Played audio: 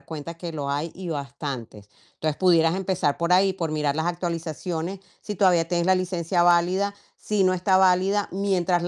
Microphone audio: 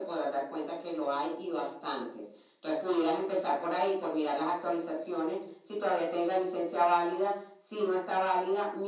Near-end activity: none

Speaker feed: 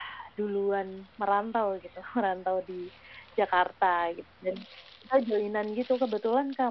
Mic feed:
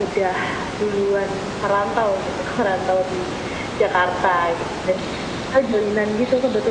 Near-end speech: none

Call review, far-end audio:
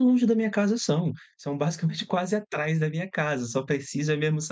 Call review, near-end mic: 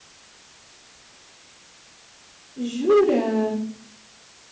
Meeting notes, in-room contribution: present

